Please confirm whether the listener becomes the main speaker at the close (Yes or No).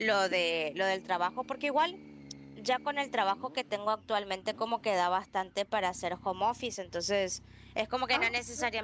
No